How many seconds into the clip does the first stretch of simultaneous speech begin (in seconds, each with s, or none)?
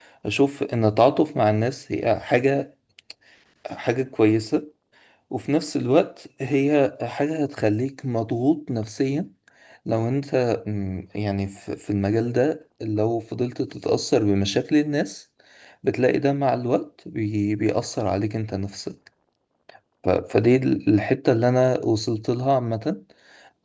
none